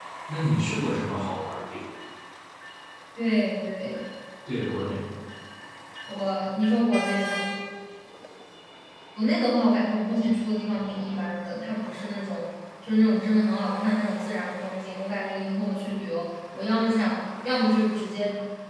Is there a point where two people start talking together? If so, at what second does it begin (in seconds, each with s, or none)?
none